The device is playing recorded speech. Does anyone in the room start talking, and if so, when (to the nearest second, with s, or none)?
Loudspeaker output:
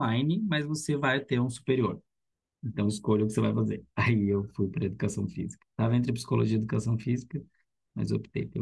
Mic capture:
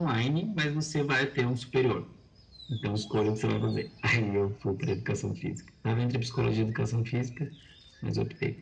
none